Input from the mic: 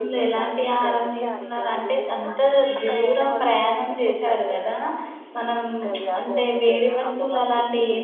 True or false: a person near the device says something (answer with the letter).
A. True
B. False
A